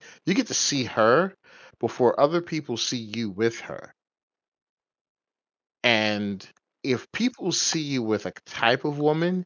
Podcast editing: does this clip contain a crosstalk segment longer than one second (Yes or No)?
No